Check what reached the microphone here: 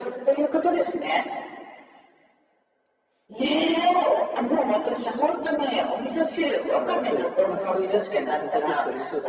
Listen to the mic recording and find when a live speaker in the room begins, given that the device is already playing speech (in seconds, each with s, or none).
6.7 s